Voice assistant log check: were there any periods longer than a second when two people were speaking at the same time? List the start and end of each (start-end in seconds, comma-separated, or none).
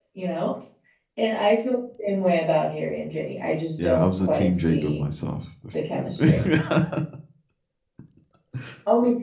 3.8-5.0